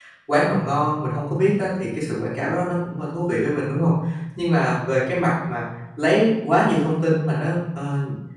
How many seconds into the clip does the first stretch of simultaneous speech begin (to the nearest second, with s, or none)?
none